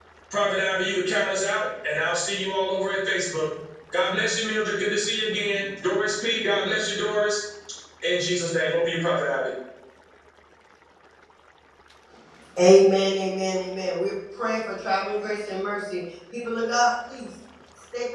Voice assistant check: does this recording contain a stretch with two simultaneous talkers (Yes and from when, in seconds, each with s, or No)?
No